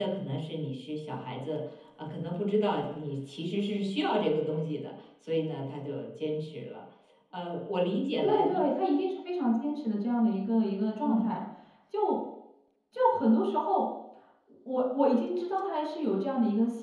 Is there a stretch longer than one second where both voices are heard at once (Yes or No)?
No